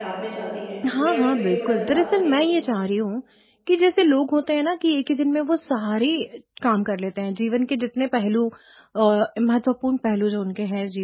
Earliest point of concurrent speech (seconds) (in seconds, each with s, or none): 1.0 s